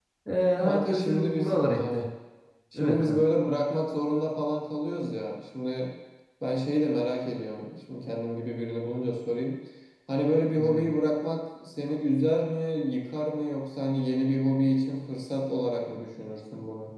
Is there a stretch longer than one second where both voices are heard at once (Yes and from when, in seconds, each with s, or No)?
Yes, from 0.6 s